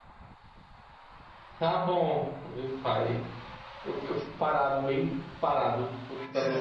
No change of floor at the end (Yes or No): No